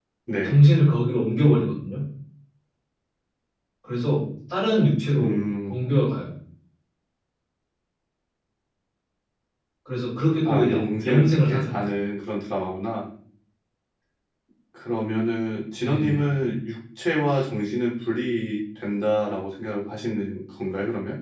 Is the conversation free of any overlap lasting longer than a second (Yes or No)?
No